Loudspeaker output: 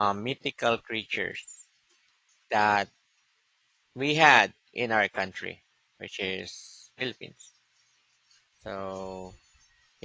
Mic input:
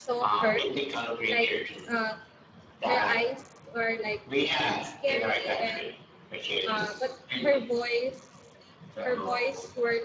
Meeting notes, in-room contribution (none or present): present